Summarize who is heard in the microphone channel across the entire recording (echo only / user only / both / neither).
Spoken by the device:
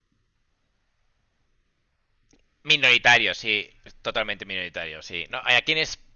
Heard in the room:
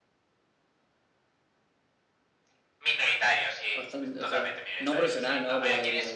both